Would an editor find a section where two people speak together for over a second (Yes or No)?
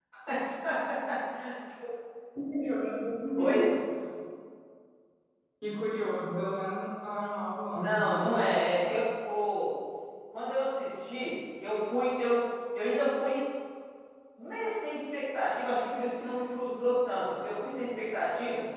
No